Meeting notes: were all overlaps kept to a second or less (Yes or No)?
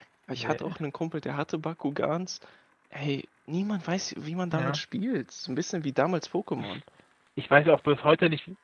Yes